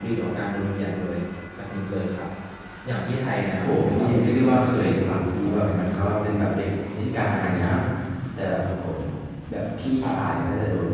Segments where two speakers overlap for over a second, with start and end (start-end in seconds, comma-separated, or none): 3.6-5.6